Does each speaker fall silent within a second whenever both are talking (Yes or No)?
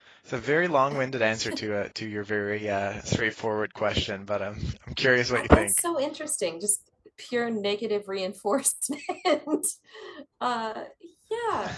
Yes